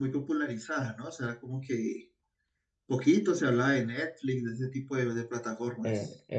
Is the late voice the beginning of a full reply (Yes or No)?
Yes